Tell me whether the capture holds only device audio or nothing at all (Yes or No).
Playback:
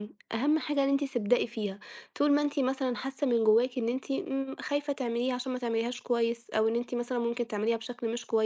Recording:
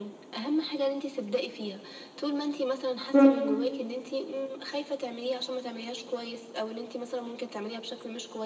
No